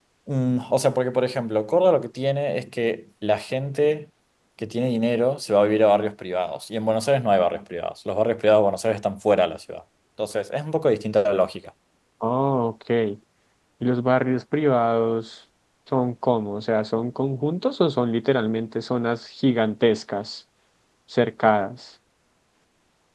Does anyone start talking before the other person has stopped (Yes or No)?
No